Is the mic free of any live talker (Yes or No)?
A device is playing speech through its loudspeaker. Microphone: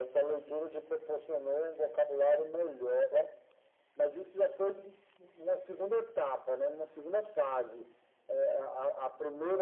Yes